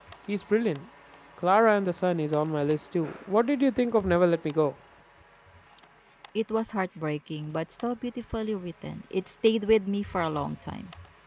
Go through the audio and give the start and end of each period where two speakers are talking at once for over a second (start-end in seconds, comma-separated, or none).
none